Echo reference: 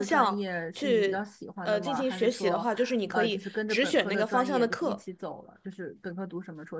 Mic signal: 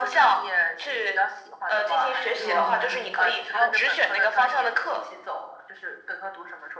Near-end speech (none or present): present